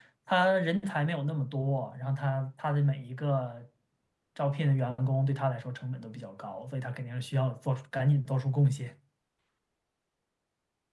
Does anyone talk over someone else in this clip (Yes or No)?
No